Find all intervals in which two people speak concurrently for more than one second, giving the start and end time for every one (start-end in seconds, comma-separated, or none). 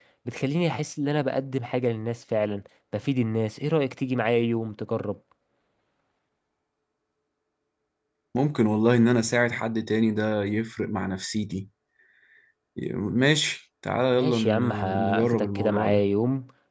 14.1-16.1